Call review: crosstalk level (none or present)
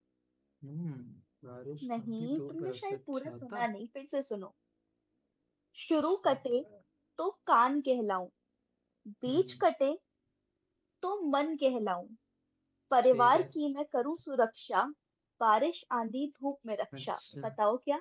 present